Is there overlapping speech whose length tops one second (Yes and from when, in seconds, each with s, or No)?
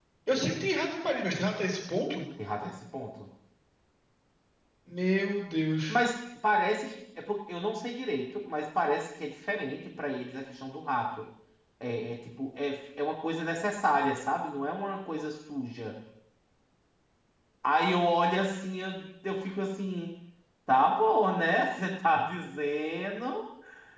No